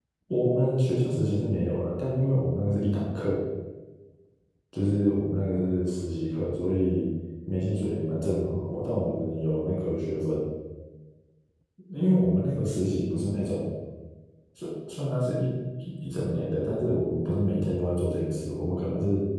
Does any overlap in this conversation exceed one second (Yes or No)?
No